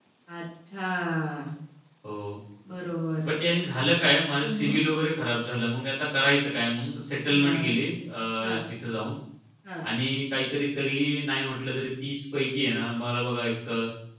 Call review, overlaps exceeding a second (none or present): none